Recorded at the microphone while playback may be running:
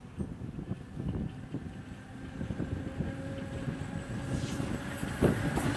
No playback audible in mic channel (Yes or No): Yes